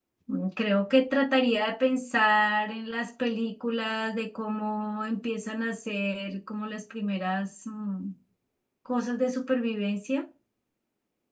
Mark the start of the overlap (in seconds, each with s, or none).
none